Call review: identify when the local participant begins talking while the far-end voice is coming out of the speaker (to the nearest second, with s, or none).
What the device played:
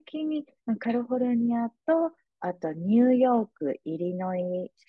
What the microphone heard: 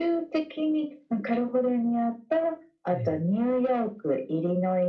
3 s